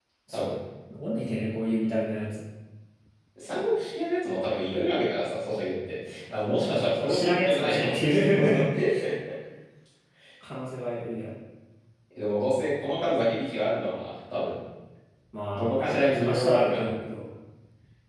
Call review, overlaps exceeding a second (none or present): present